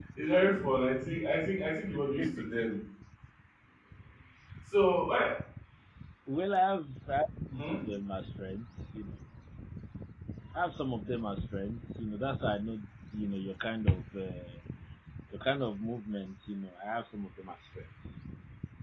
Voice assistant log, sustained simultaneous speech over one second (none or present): none